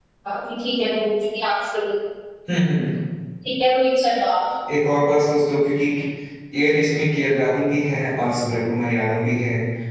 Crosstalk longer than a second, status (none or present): none